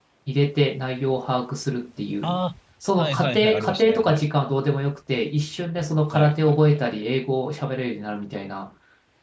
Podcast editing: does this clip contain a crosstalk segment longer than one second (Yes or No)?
Yes